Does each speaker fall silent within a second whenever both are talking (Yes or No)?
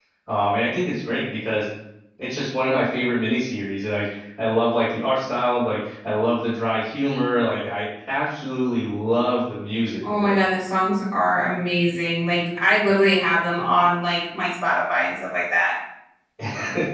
Yes